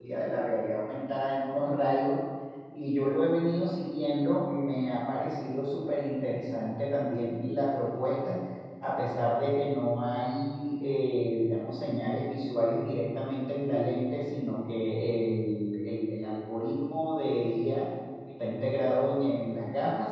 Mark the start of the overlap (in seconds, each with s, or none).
none